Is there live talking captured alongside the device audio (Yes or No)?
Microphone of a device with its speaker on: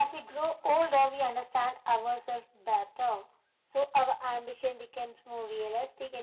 No